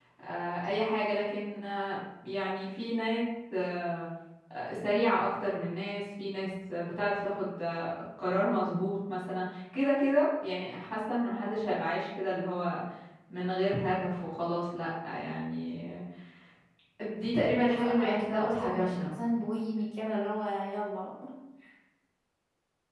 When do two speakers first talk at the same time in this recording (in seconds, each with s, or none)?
17.5 s